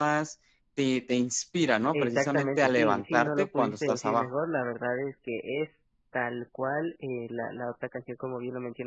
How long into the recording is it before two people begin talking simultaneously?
1.9 s

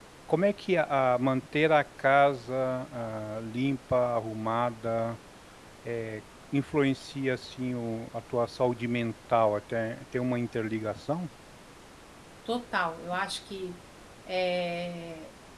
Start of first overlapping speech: none

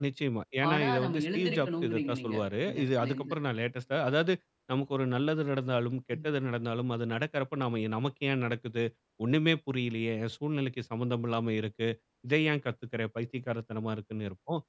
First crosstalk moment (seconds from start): 0.7 s

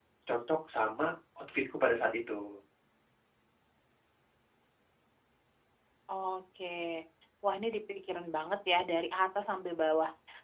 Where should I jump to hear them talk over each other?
none

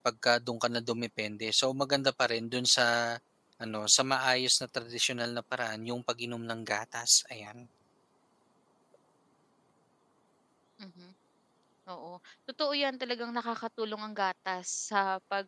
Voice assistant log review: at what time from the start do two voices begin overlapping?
none

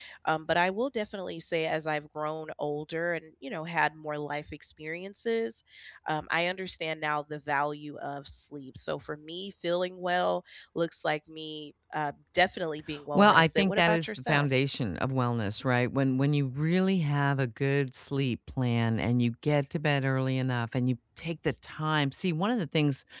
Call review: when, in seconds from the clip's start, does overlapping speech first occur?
13.2 s

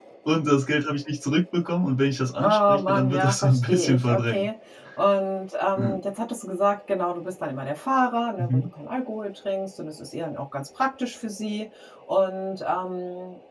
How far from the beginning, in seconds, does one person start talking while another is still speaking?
2.4 s

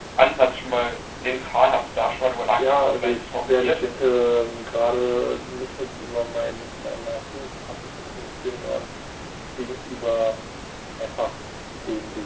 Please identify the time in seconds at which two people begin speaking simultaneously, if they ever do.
2.6 s

